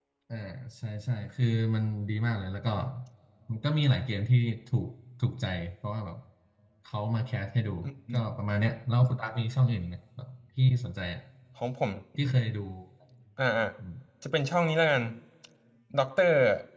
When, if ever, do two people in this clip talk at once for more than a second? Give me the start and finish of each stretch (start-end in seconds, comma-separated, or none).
none